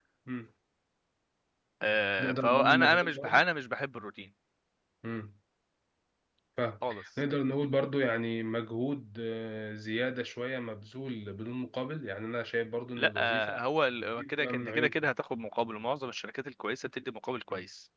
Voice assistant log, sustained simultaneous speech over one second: present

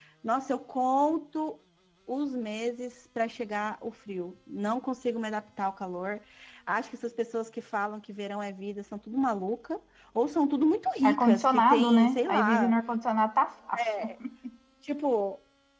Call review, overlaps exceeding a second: present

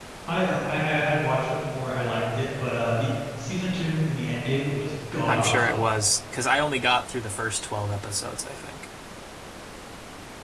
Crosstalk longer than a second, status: none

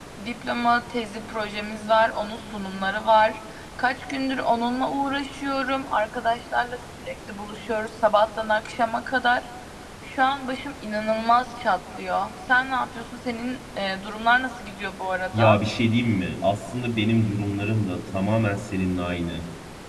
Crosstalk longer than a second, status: none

